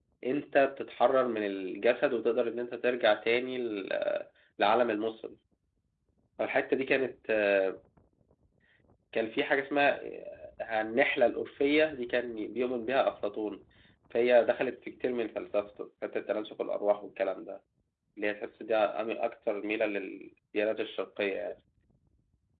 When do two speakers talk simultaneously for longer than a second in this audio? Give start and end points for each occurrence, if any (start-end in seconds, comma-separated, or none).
none